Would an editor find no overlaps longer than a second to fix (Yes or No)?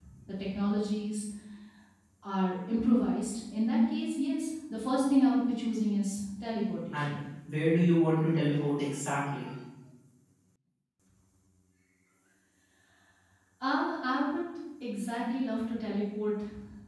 Yes